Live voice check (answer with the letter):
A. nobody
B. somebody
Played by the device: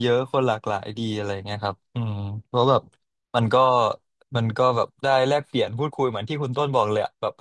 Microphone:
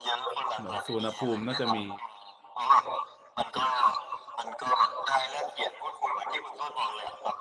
B